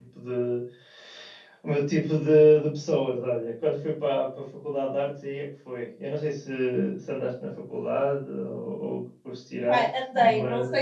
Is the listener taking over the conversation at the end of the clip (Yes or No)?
Yes